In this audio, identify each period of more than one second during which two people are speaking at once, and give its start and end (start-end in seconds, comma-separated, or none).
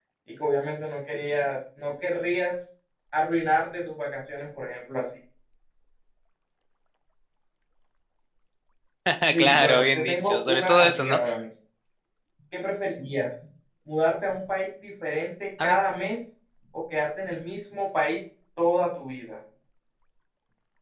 9.4-11.2